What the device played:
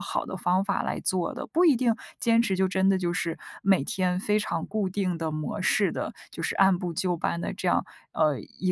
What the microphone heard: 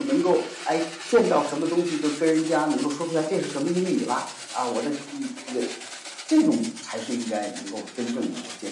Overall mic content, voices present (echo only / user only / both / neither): user only